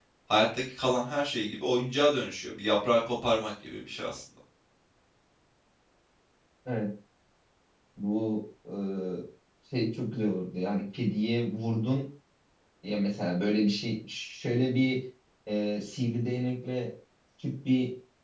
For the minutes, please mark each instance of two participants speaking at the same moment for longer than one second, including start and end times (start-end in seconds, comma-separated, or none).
none